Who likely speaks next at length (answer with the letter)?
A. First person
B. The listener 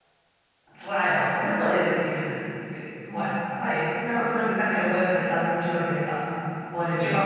B